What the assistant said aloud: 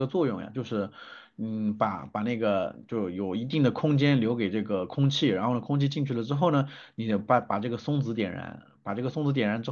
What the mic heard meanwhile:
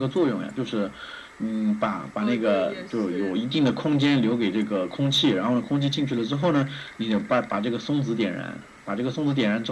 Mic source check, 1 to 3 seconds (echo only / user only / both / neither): both